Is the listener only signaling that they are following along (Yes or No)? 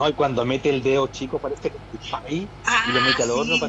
Yes